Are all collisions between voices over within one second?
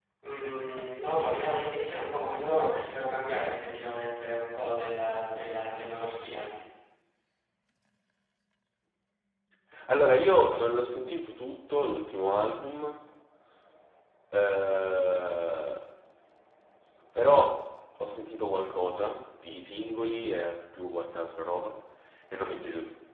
Yes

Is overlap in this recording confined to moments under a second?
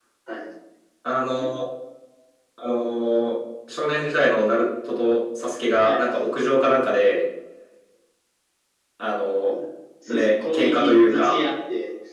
No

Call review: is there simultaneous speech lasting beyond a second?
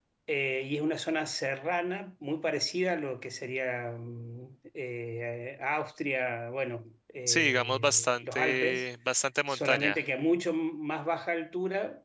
Yes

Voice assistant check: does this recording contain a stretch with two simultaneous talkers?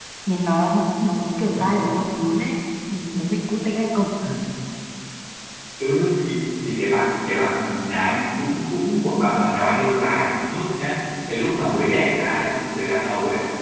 No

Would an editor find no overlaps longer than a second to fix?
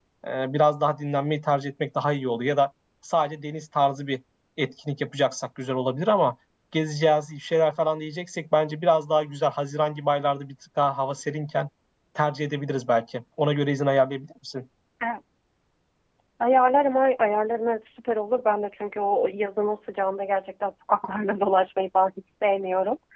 Yes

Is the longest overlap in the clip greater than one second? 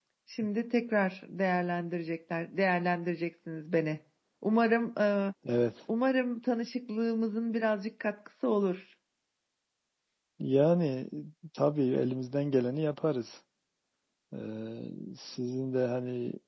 No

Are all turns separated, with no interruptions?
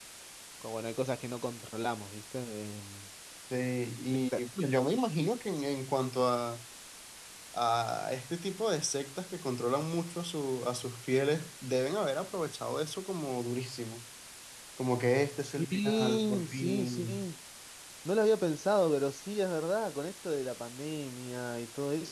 No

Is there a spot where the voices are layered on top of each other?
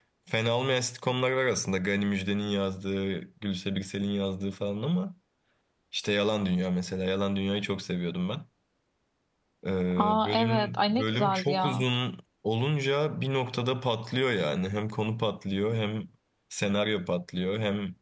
Yes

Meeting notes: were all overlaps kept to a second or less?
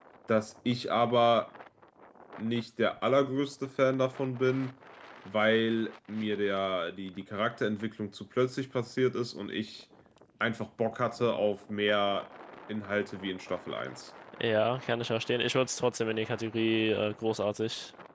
Yes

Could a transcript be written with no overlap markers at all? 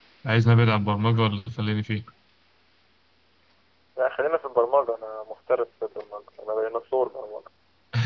Yes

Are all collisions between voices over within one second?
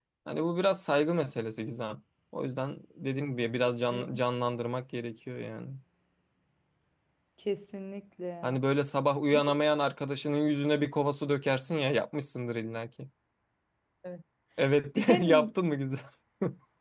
Yes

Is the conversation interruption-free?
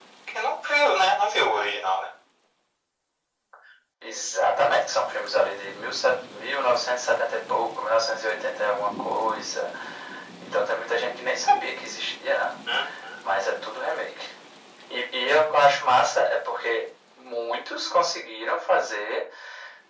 Yes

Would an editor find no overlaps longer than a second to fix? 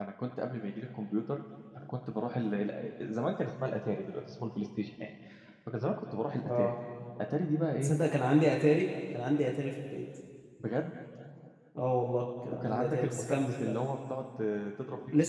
No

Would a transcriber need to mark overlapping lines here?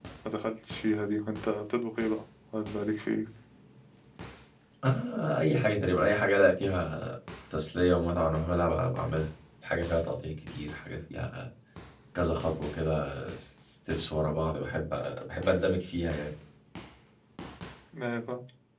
No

